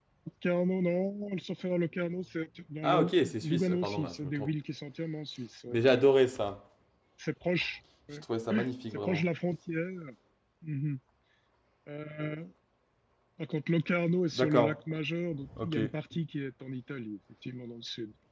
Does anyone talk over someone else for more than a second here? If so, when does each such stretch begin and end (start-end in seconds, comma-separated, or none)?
2.8-4.5